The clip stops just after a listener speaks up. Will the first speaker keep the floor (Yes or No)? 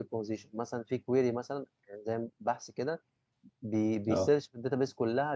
Yes